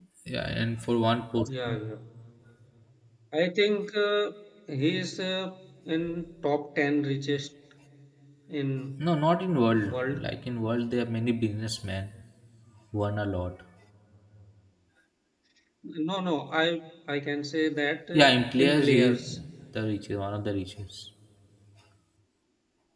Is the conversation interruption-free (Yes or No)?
No